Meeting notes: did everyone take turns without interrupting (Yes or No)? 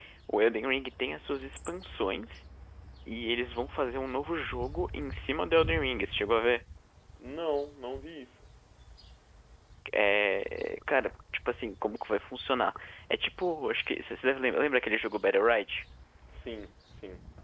Yes